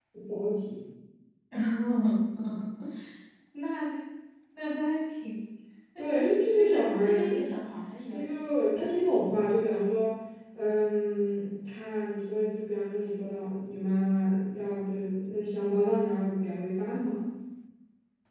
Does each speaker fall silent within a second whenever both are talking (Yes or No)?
No